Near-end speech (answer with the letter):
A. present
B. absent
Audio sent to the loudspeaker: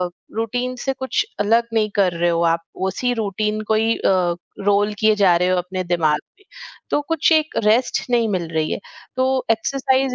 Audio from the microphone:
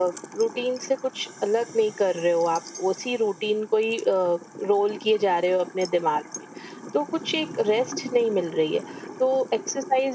B